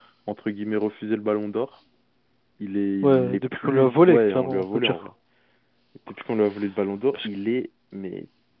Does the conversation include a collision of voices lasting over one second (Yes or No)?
Yes